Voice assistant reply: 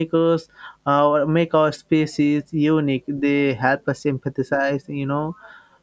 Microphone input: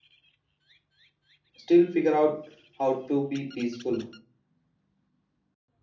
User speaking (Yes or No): Yes